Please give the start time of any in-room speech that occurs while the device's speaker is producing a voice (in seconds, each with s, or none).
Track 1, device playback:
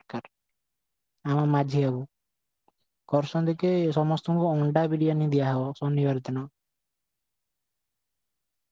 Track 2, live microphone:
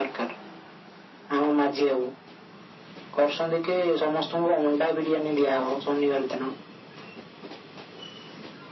none